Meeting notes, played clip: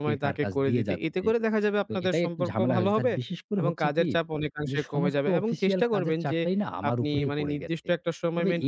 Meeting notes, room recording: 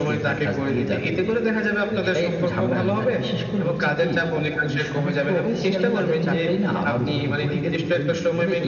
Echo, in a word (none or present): present